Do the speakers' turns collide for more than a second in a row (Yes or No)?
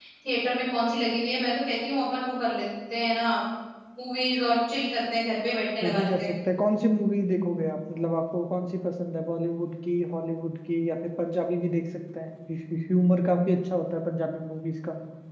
No